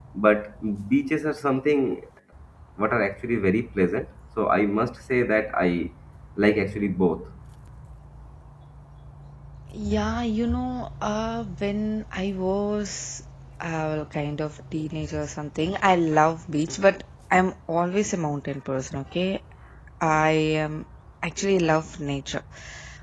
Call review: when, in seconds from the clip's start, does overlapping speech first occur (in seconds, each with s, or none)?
none